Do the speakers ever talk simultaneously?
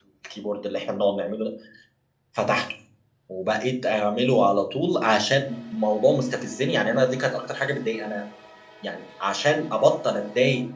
No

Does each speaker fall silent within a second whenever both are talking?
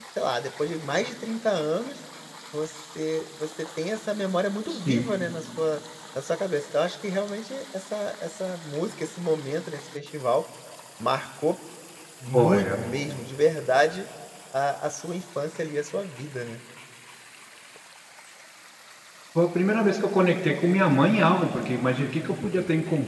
Yes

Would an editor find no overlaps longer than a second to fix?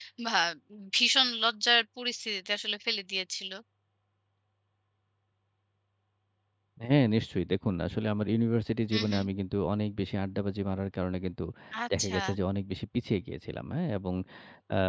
Yes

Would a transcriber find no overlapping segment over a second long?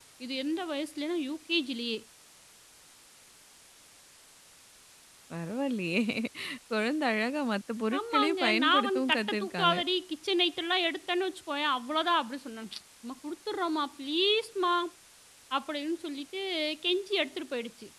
No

